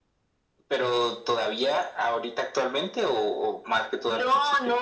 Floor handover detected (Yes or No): Yes